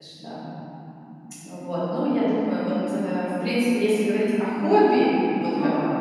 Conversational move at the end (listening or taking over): listening